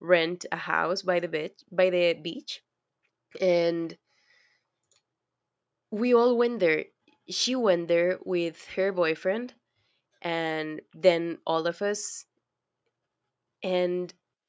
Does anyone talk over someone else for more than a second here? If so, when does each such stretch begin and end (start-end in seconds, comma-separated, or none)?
none